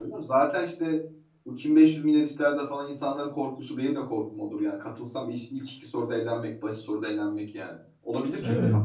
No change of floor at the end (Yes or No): No